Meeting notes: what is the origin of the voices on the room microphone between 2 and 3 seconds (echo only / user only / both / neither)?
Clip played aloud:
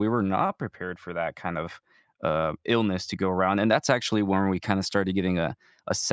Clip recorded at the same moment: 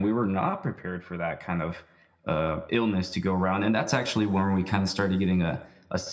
echo only